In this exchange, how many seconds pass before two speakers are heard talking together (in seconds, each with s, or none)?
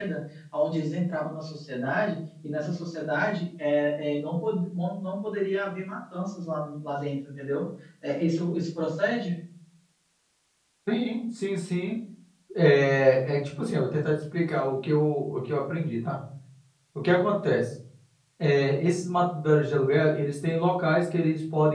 none